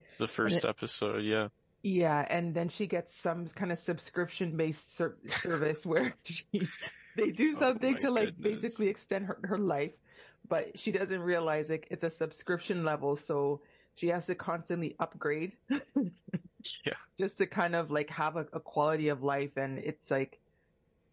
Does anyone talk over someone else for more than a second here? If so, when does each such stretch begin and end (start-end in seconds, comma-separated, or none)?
7.5-8.8